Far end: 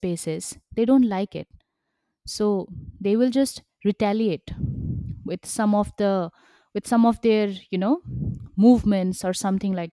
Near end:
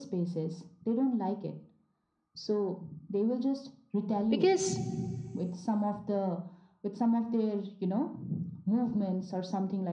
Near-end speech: present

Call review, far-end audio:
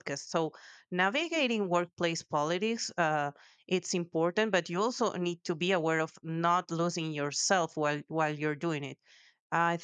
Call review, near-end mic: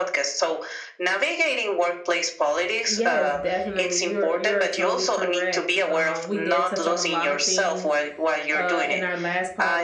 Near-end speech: present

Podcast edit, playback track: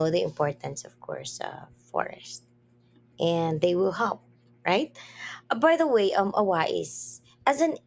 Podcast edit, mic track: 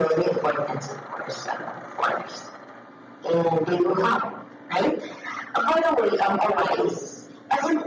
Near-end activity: none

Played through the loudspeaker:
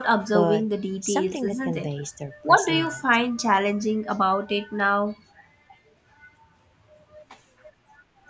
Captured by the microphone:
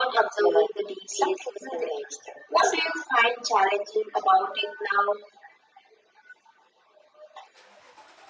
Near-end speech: none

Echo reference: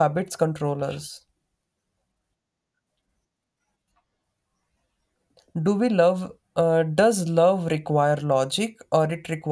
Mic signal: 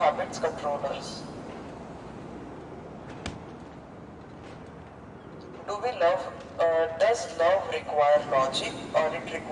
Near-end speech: none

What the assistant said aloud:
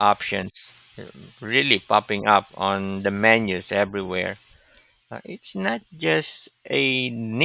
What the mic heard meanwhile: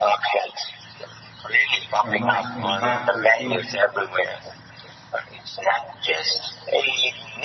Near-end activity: present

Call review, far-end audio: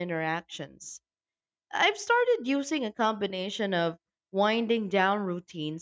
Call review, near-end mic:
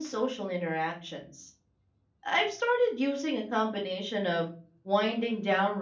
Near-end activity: none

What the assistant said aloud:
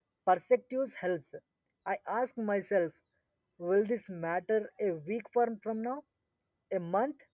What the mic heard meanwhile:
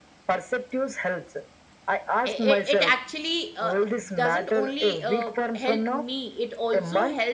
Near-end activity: present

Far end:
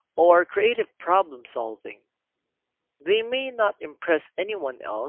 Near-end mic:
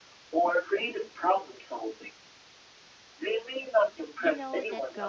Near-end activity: present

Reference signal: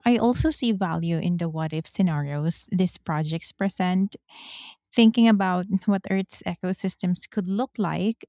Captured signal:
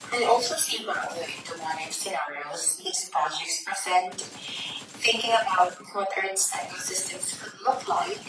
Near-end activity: none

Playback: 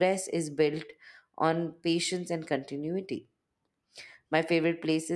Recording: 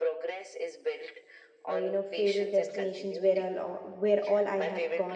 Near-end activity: present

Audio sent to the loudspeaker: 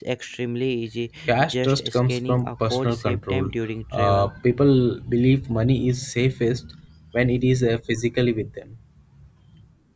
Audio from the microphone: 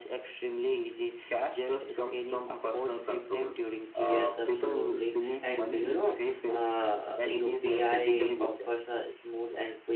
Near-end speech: present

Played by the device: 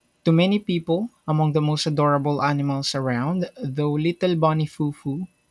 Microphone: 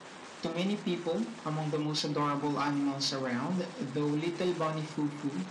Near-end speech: none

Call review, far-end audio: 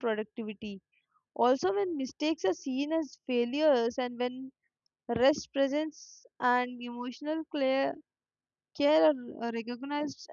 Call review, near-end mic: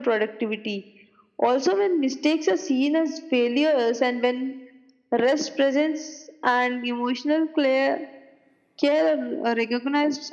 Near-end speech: none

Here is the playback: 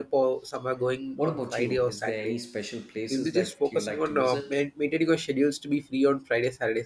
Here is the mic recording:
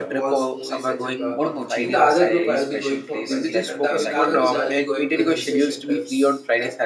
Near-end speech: present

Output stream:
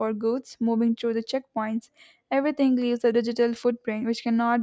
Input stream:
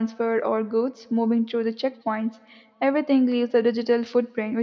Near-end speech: none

